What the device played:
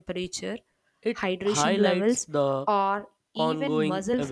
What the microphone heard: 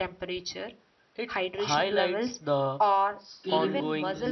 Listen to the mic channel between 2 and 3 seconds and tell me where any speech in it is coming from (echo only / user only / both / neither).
echo only